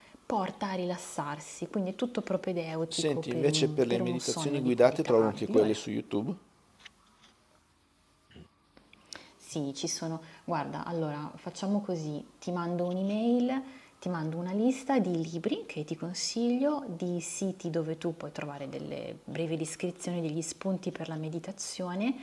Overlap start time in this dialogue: 2.9 s

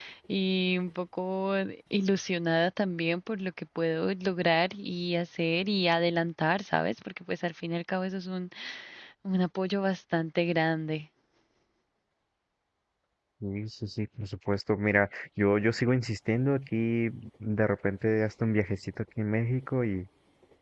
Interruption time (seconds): none

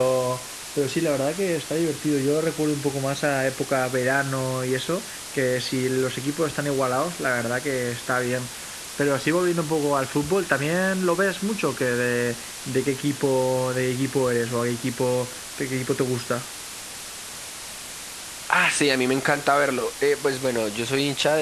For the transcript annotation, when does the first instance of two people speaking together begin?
none

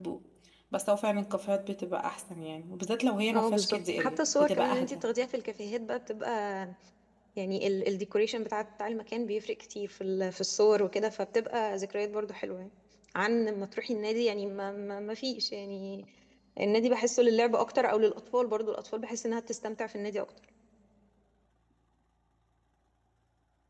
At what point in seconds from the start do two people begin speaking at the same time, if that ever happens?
3.3 s

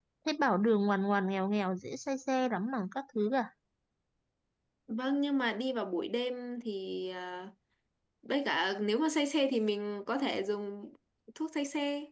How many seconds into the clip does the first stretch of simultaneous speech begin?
none

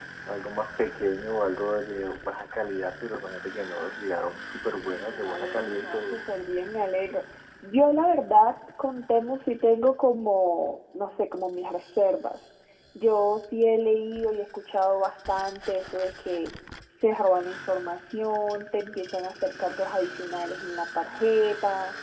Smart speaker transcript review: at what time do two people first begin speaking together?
4.9 s

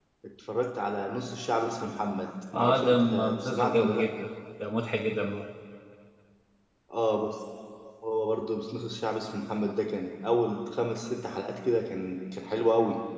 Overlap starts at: 2.5 s

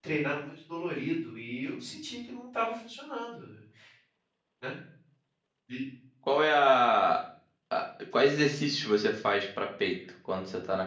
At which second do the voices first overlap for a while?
none

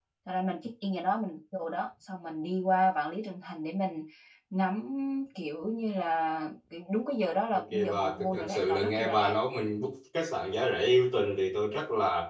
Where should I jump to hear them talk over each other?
7.5 s

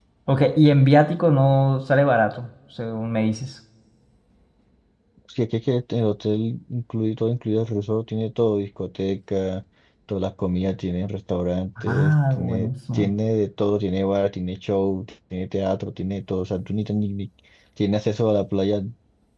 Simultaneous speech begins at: 11.8 s

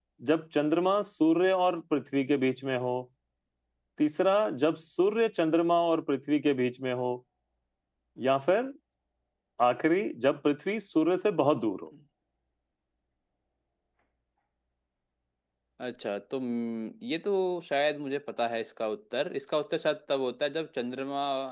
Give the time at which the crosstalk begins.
none

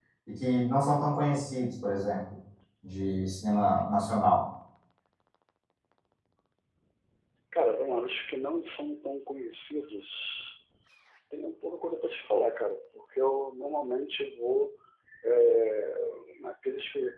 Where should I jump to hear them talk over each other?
none

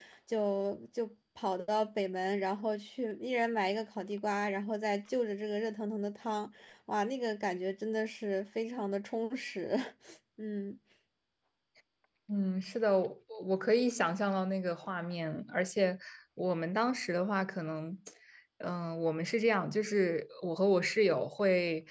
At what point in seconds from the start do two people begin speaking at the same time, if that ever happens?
none

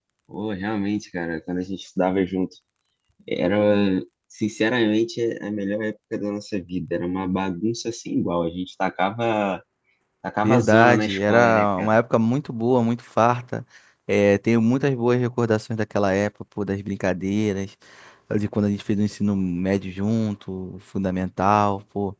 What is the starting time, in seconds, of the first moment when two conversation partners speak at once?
10.4 s

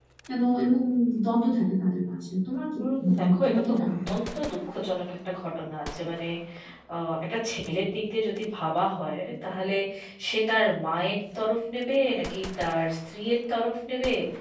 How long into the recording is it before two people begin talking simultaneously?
2.8 s

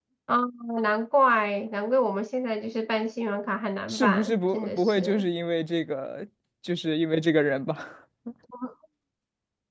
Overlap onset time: 3.9 s

